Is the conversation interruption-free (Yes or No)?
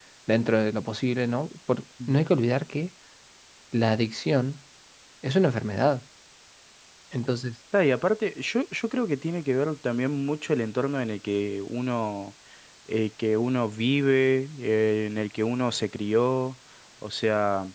Yes